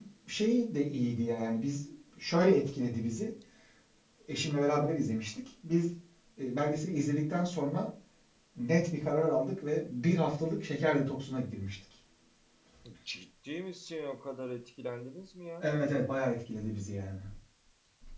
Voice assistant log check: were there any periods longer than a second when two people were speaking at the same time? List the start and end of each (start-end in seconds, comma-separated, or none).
none